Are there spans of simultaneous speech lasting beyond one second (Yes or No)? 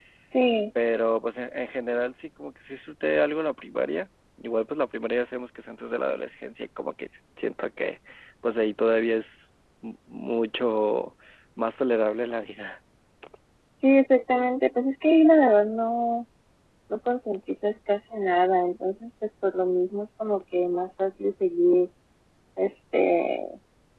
No